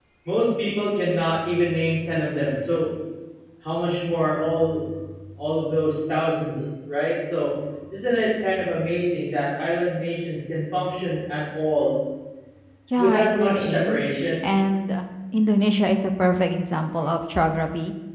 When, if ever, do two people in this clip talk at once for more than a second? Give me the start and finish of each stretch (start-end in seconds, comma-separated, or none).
13.0-14.2